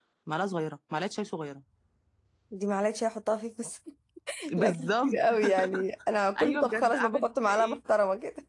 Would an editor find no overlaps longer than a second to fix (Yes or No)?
No